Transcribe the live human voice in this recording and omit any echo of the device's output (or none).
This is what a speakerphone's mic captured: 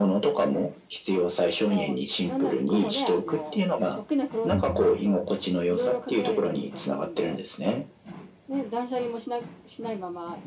う、うん。